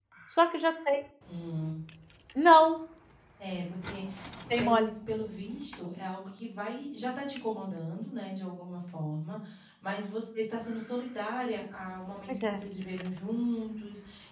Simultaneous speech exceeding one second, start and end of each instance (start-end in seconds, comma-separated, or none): none